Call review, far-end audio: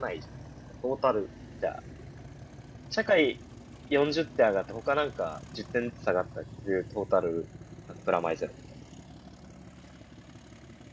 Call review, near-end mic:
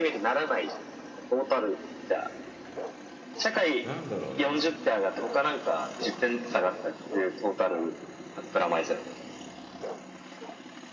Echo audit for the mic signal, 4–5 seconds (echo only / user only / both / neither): both